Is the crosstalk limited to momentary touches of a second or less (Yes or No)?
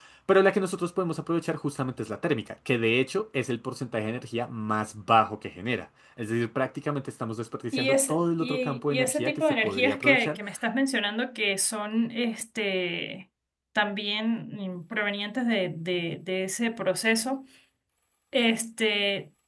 No